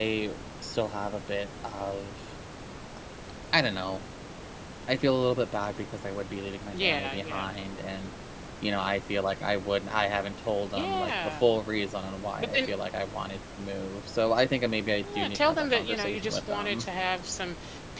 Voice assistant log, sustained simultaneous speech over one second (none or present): present